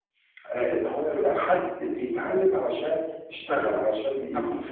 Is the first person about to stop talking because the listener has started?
No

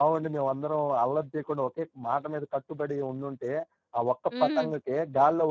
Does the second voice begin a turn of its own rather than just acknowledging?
No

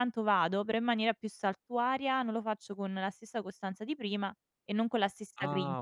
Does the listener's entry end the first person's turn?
Yes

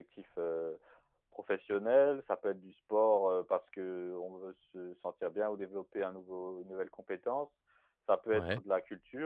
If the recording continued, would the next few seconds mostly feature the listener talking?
No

